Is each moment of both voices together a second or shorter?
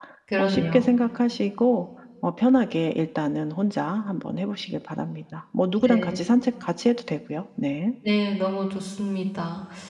Yes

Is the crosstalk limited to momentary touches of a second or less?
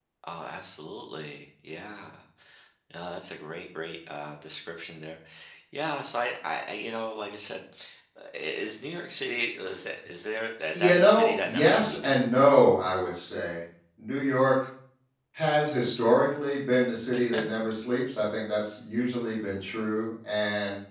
No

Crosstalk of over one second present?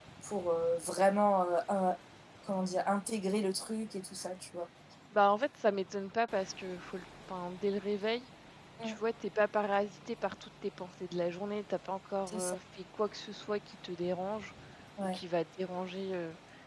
No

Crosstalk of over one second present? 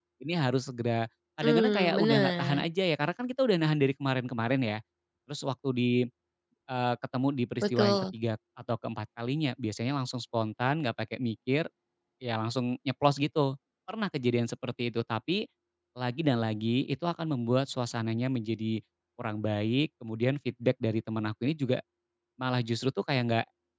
Yes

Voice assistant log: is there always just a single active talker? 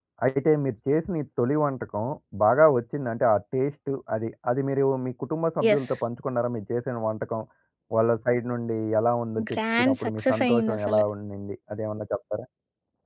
No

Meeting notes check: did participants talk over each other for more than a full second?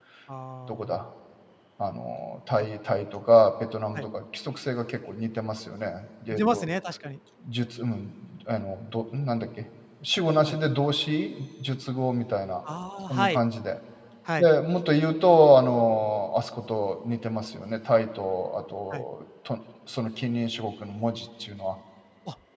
No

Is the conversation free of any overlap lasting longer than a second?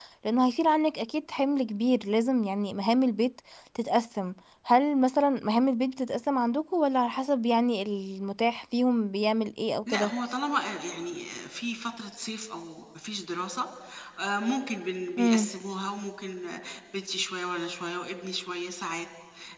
Yes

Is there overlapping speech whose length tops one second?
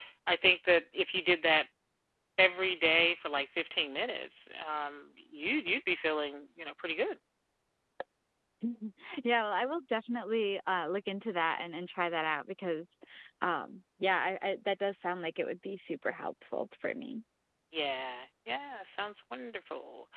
No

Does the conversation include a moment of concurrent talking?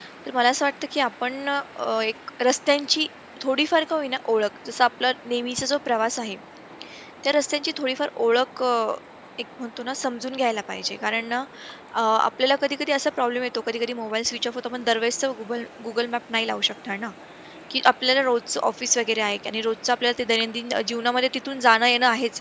No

